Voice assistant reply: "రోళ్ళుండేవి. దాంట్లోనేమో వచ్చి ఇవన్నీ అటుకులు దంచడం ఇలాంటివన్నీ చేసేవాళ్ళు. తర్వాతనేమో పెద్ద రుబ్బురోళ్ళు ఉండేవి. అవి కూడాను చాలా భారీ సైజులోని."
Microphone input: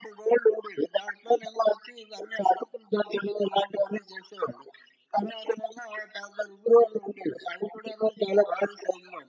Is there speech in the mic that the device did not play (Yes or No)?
No